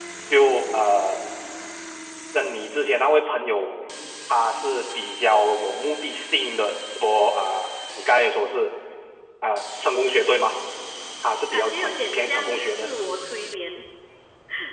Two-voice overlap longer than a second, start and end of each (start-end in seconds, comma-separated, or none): 11.4-12.9